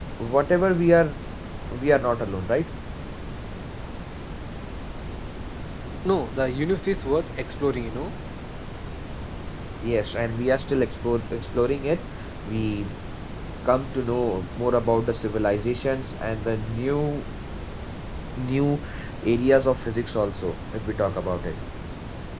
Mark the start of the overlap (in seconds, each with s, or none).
none